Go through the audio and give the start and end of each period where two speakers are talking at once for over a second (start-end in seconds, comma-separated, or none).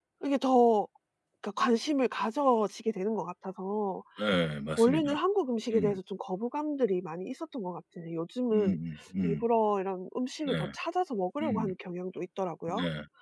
none